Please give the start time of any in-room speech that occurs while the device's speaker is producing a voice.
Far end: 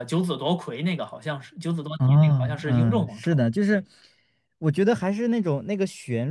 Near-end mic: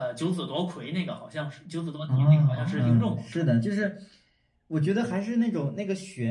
3 s

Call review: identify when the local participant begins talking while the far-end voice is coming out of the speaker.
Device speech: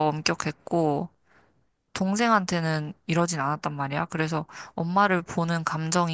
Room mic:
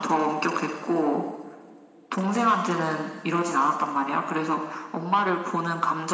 none

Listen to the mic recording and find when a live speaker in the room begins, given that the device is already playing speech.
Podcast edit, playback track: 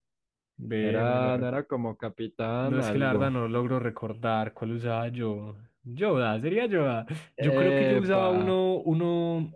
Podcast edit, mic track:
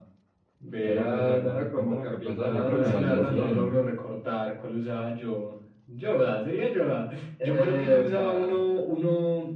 1 s

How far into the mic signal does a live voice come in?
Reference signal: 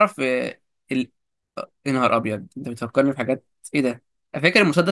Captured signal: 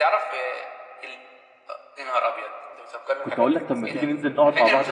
3 s

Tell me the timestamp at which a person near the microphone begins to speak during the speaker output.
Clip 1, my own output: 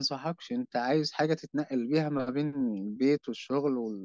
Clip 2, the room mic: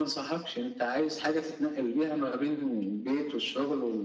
none

